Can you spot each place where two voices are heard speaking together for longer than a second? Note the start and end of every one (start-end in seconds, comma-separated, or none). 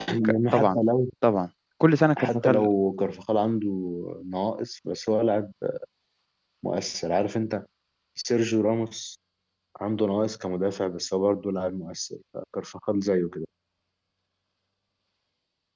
none